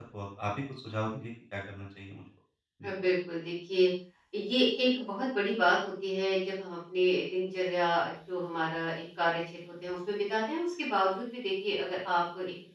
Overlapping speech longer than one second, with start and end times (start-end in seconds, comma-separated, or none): none